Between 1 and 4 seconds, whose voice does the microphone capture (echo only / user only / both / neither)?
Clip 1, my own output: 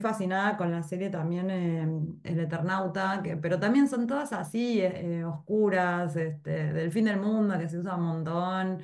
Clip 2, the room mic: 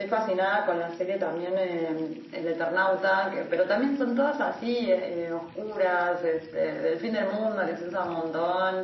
echo only